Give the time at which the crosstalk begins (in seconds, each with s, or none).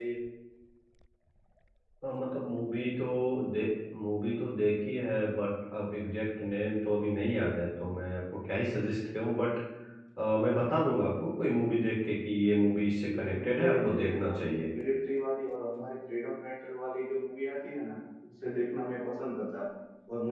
13.1 s